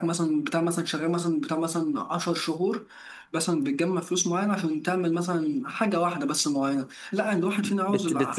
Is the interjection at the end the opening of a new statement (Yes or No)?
Yes